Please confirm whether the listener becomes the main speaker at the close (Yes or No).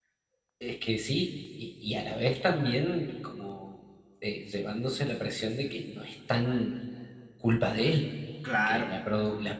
No